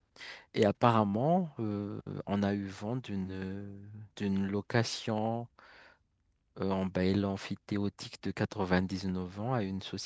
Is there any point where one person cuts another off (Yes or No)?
No